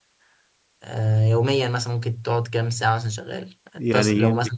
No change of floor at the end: No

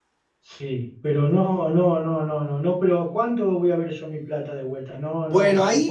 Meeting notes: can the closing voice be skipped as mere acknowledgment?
No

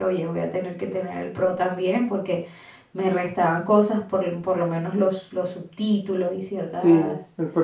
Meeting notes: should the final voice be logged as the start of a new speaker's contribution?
Yes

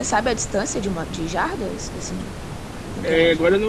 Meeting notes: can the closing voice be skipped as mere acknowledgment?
No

